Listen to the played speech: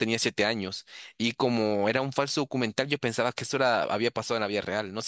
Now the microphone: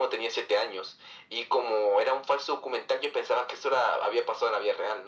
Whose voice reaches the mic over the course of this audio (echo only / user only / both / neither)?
echo only